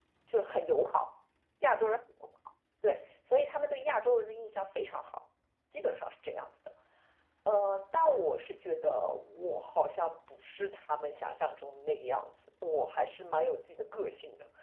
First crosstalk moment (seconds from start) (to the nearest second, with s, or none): none